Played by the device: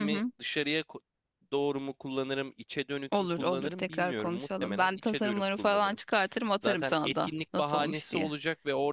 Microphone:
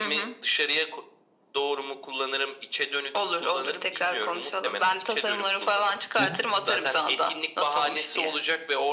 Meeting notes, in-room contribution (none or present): present